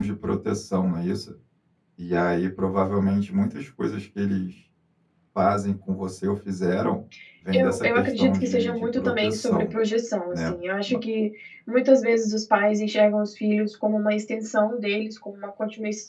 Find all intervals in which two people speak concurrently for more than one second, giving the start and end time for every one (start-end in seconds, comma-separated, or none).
7.5-9.7